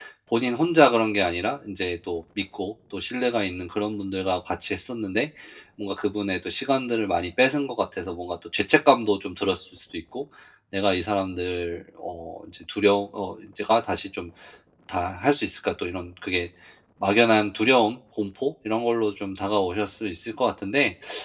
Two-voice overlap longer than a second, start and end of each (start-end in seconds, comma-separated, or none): none